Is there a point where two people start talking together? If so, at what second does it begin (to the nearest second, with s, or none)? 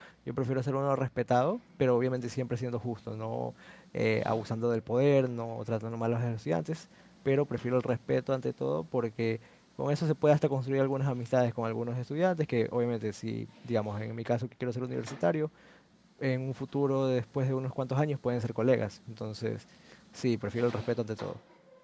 none